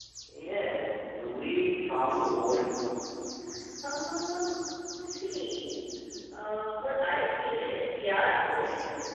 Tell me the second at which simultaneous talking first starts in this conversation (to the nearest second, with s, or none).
none